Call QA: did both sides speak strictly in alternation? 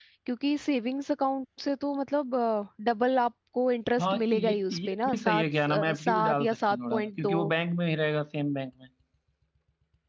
No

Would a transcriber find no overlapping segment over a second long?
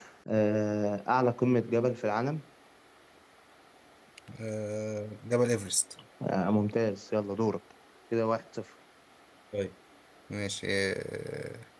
Yes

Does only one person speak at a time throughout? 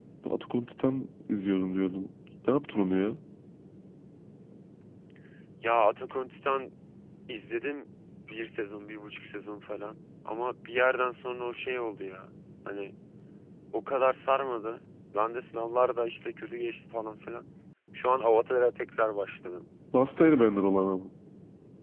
Yes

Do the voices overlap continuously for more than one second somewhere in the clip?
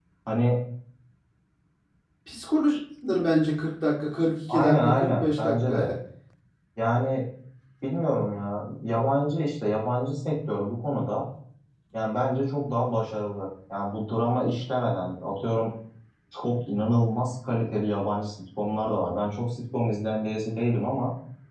Yes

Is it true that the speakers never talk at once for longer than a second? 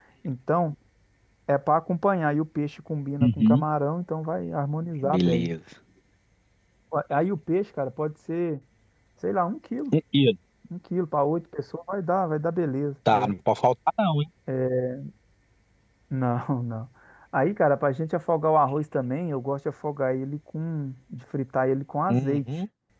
Yes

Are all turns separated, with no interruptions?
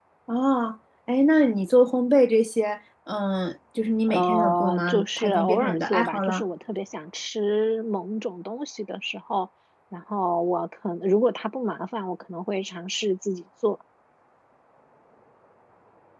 No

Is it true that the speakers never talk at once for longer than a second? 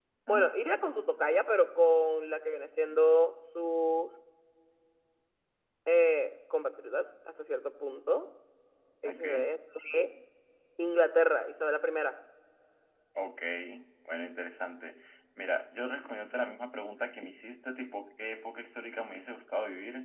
Yes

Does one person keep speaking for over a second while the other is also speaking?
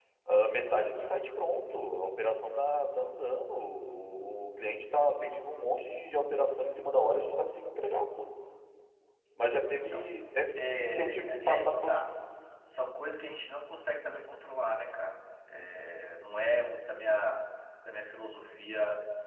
Yes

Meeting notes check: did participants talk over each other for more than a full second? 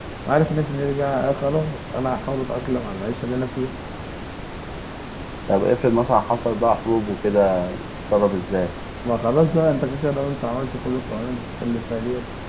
No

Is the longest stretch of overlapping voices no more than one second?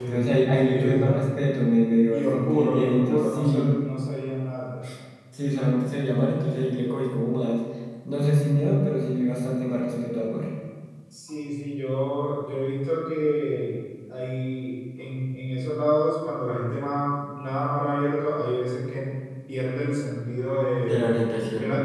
No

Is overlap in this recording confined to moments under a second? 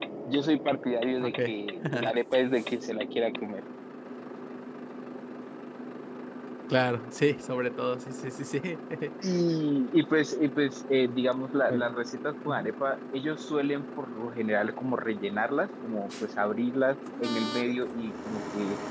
Yes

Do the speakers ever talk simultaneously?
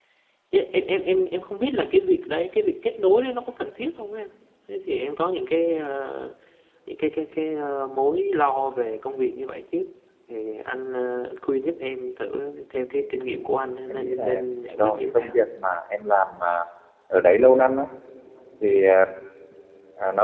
Yes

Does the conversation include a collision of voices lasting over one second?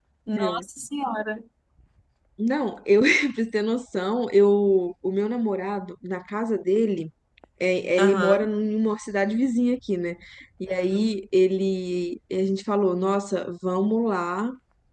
No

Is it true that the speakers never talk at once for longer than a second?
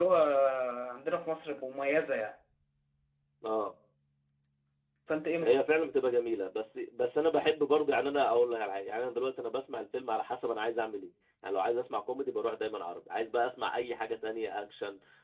Yes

